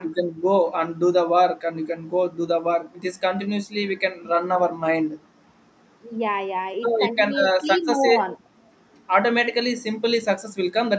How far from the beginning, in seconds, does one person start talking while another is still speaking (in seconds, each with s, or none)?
6.8 s